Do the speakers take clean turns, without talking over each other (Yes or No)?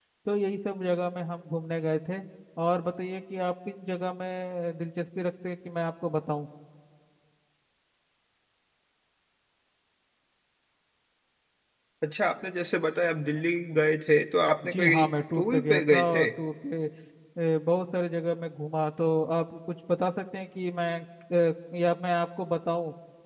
No